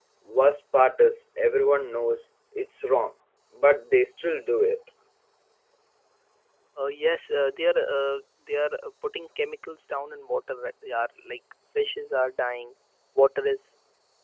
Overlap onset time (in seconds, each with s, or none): none